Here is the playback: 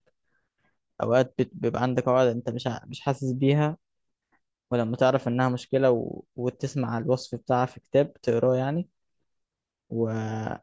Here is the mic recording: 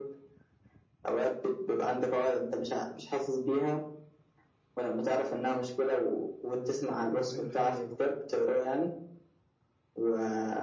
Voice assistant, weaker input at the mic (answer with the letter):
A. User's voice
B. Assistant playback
A